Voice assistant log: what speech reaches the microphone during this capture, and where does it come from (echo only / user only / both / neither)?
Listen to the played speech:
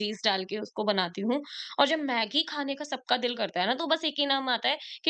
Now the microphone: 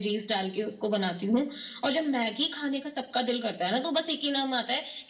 echo only